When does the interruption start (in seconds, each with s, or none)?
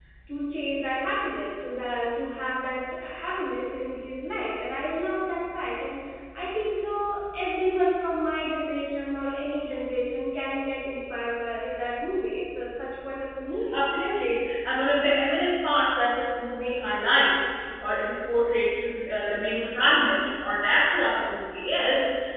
none